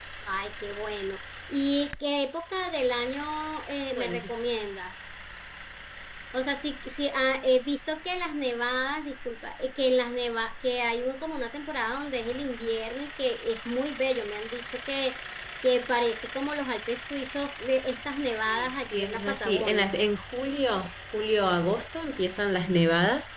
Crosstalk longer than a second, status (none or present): present